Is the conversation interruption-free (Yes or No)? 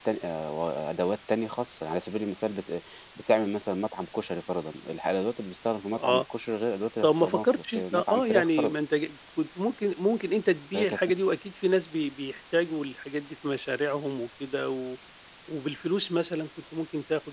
No